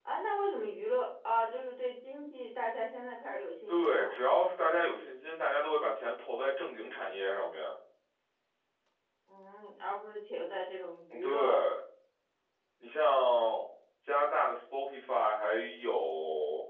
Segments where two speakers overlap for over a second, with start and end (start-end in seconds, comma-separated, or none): none